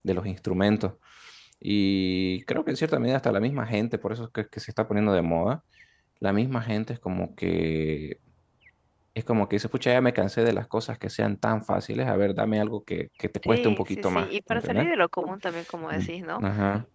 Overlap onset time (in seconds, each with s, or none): 13.4 s